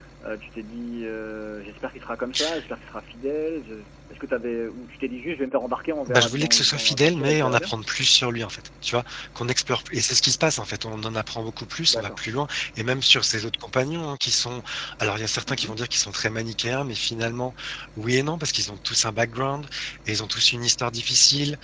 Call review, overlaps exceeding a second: present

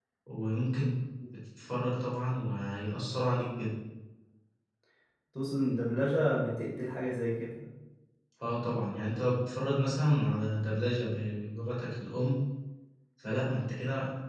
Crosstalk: none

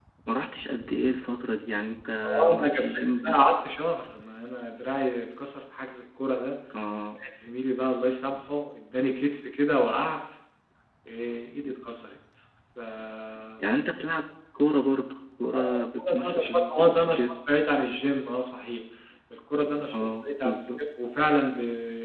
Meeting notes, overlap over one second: present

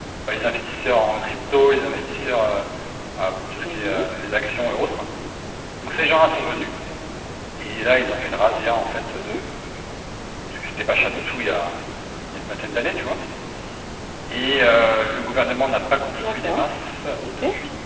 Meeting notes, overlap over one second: none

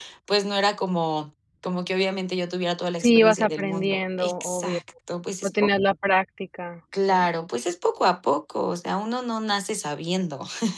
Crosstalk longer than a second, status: present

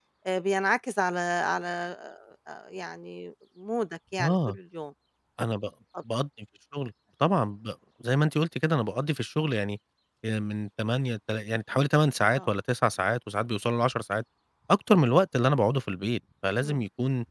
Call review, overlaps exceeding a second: none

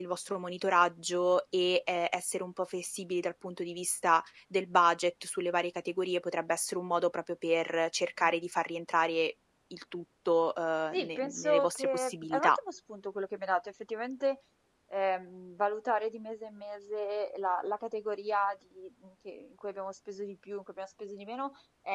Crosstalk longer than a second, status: present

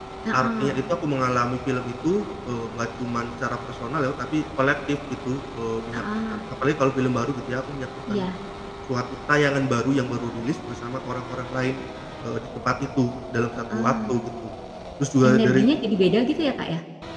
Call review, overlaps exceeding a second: none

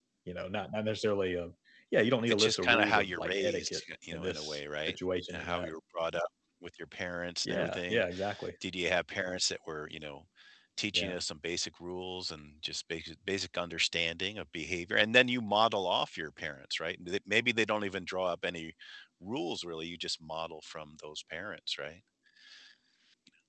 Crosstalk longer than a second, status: present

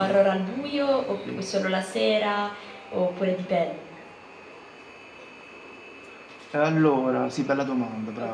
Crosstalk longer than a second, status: none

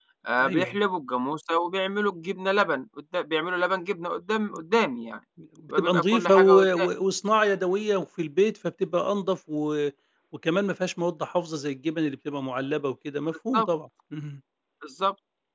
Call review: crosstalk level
present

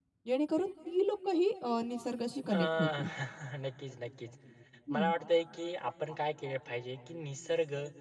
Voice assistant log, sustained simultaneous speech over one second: none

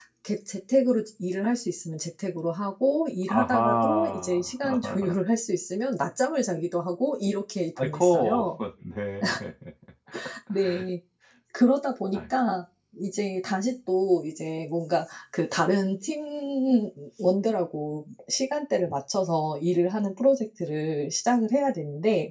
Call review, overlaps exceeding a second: present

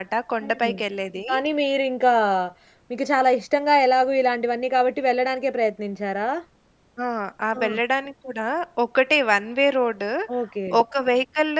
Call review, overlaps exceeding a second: none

